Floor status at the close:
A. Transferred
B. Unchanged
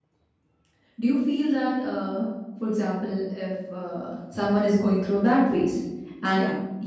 B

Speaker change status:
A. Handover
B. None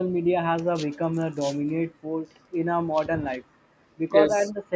B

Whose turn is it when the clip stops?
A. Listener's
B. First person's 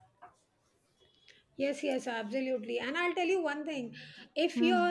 B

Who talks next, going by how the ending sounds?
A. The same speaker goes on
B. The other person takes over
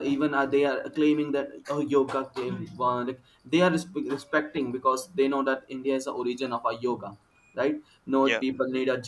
A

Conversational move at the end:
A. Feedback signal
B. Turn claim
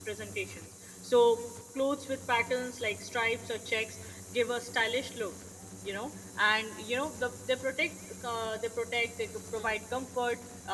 A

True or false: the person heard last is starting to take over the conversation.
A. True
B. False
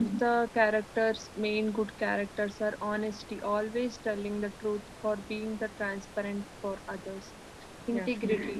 B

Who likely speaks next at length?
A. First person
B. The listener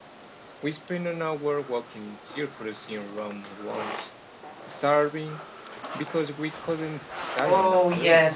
B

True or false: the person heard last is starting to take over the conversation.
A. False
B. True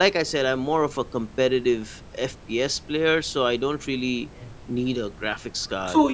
B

